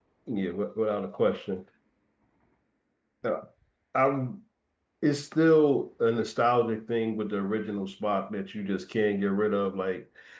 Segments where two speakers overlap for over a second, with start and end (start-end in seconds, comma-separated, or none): none